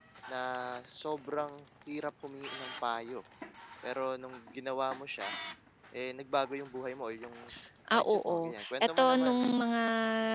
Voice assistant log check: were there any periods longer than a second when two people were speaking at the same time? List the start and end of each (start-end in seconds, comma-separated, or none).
7.9-9.4